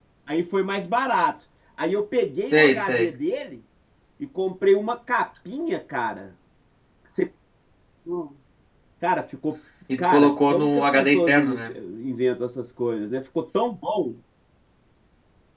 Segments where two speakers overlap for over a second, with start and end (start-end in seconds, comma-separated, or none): 10.0-11.5